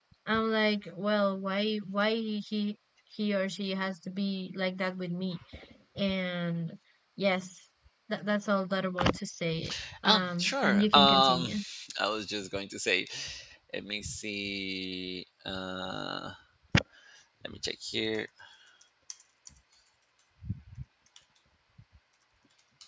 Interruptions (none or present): present